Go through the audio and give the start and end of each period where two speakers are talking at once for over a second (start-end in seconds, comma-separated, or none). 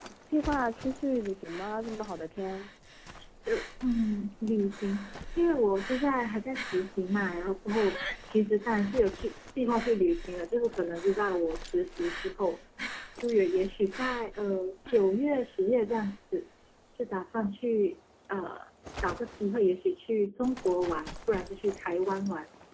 none